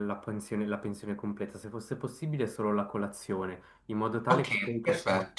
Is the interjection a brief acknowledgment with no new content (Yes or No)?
No